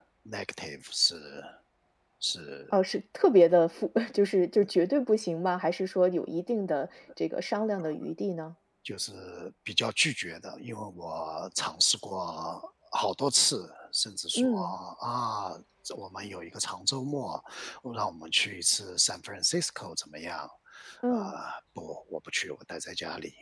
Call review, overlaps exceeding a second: none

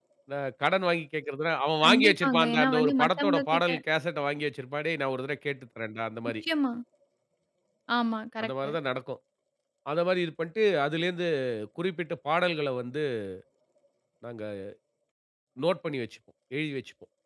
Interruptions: present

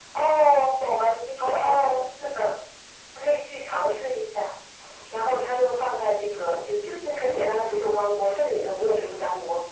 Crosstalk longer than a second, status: none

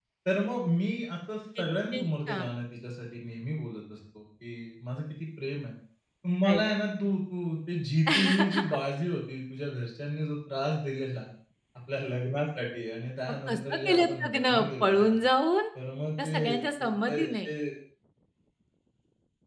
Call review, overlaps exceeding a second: present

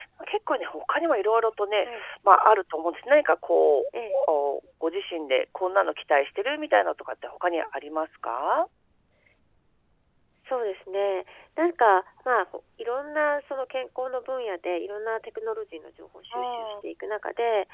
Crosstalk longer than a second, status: none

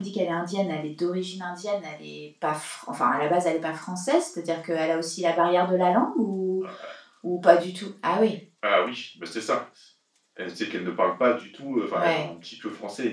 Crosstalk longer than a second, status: none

